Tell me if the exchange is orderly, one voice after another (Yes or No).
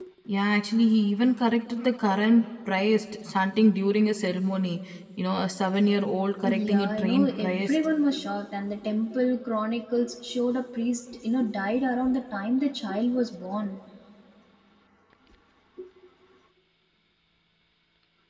No